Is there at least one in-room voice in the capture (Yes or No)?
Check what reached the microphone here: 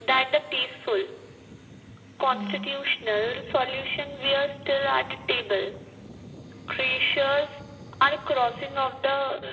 Yes